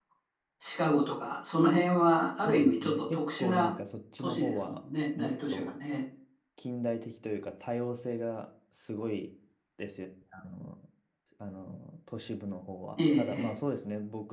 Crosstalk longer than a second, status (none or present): present